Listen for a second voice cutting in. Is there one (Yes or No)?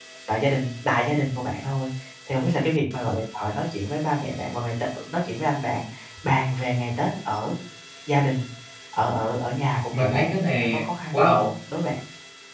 Yes